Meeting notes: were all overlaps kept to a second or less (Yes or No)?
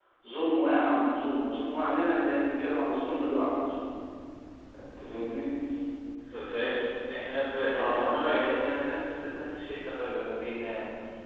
Yes